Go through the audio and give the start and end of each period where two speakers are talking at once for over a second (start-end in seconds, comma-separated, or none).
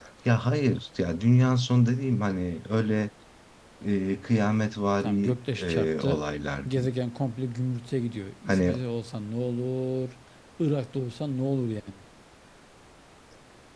5.0-6.2